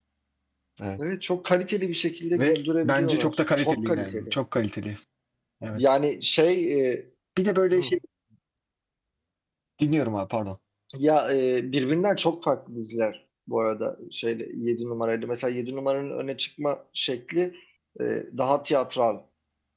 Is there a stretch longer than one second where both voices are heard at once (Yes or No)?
Yes